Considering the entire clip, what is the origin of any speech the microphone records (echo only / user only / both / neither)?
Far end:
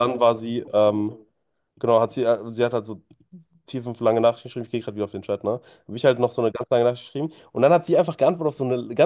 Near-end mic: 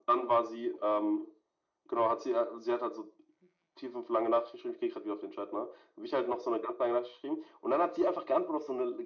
echo only